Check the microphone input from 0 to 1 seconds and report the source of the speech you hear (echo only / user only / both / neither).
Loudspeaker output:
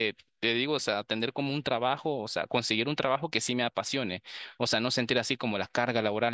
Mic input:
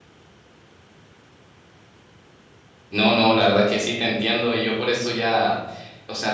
neither